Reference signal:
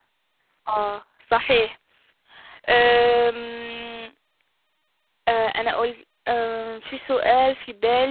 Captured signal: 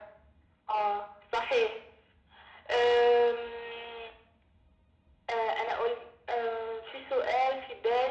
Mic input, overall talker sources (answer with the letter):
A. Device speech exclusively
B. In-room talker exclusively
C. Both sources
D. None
A